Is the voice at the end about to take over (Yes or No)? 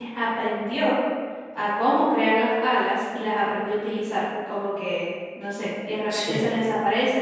No